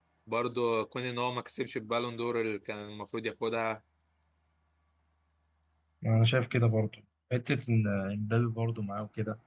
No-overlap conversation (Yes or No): Yes